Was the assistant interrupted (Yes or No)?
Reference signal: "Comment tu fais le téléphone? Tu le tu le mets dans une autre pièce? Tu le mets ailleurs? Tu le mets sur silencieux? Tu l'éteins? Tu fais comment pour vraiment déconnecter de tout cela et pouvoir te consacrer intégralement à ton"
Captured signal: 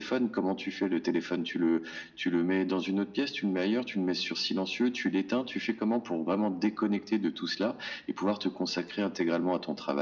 No